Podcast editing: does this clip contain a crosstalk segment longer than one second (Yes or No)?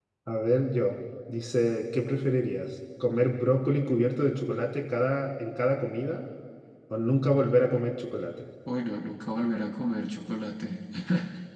No